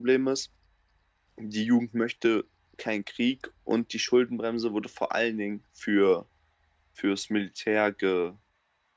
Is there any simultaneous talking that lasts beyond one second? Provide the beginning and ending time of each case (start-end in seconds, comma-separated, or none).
none